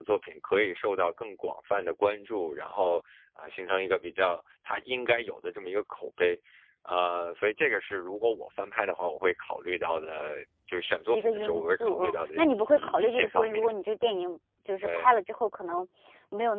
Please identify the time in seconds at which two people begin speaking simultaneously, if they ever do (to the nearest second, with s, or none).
11 s